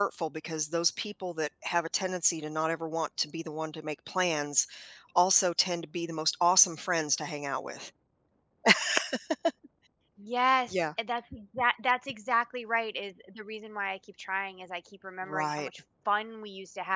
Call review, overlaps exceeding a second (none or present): none